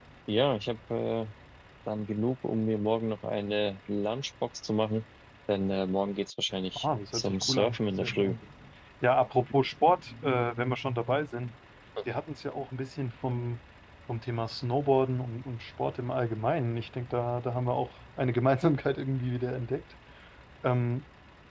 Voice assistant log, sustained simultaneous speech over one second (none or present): present